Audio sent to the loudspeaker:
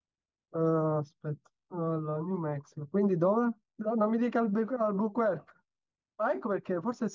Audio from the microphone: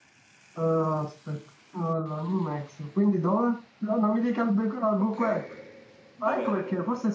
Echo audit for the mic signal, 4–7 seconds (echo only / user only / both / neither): both